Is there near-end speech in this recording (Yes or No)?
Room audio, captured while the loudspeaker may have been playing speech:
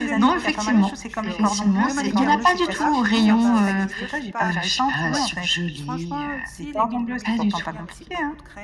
Yes